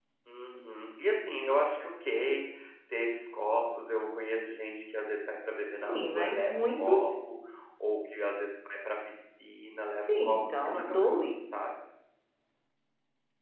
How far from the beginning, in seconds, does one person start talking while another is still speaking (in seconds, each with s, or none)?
5.8 s